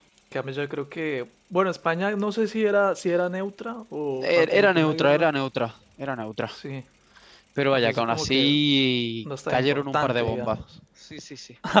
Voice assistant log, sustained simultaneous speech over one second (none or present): present